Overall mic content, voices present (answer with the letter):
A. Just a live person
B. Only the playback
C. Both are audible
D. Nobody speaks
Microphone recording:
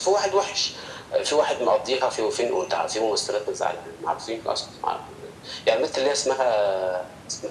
B